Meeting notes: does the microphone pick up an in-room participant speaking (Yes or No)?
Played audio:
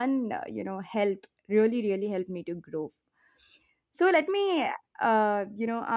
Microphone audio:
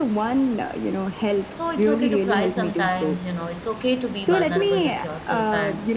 Yes